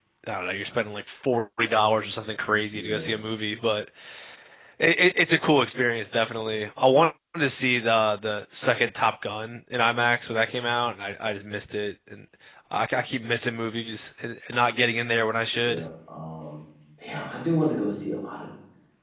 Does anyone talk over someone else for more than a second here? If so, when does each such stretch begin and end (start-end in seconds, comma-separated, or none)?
none